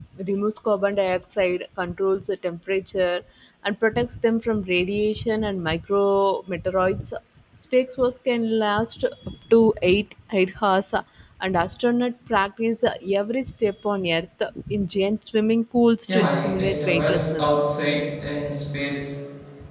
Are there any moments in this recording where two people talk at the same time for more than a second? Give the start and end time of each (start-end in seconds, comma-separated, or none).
16.1-17.6